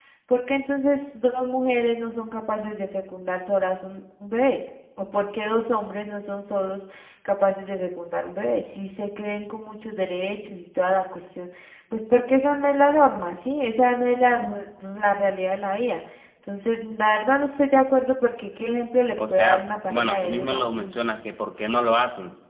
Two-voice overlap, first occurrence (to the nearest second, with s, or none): 19 s